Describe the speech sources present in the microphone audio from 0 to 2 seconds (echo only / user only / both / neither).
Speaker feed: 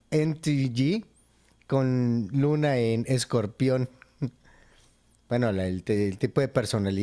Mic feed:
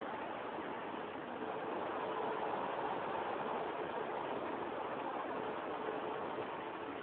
neither